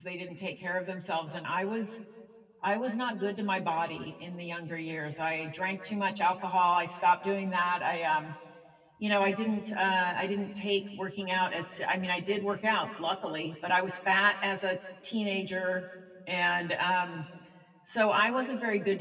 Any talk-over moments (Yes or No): No